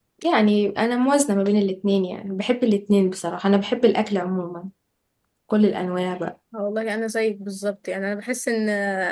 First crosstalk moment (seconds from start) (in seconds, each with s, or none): none